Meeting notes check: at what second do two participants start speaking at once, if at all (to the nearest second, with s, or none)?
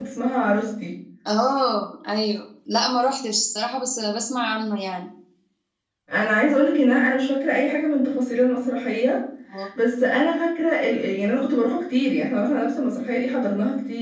none